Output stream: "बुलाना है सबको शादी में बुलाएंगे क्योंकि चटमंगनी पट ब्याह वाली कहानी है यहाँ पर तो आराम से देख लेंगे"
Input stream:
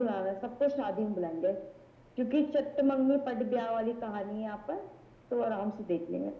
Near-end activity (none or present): none